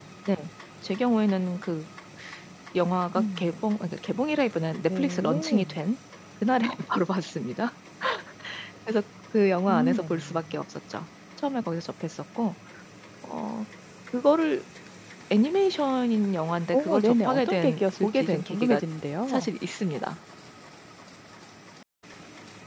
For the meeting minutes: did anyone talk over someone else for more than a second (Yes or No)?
Yes